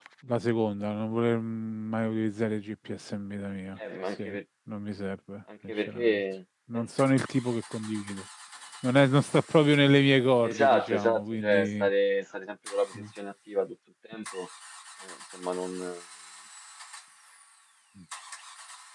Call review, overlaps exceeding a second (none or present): present